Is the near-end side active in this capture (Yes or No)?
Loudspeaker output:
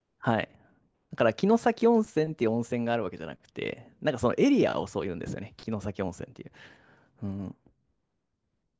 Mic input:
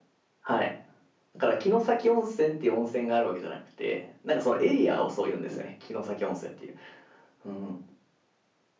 No